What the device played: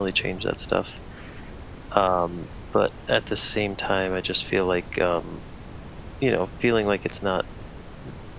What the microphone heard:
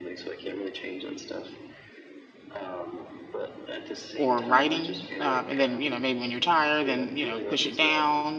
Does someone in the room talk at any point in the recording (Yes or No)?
Yes